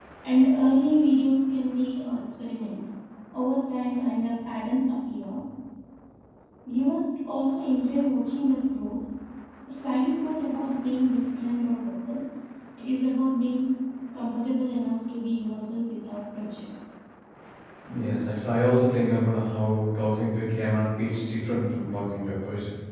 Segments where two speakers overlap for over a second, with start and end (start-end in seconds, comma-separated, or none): none